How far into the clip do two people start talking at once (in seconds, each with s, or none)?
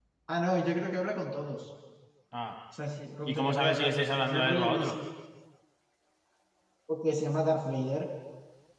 3.2 s